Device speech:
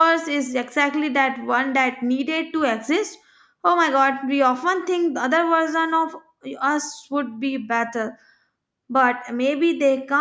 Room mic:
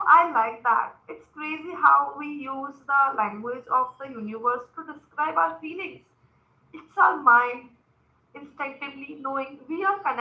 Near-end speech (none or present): present